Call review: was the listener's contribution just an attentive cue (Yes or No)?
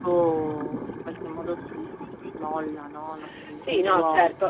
No